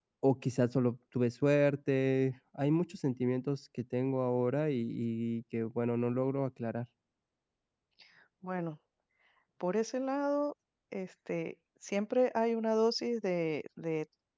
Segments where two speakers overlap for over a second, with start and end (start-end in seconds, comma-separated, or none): none